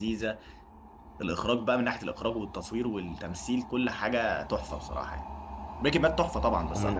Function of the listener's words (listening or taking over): taking over